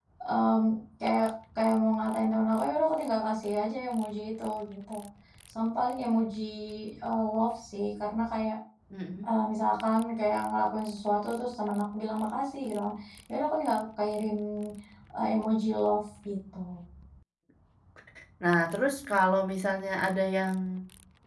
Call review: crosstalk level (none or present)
none